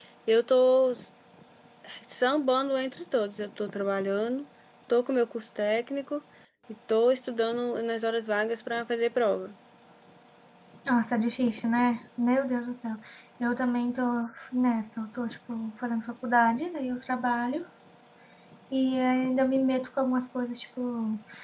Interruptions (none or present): none